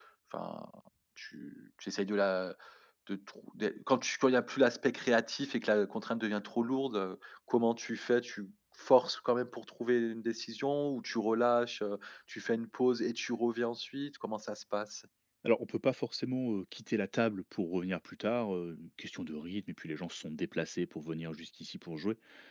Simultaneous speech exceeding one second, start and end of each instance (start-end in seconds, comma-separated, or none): none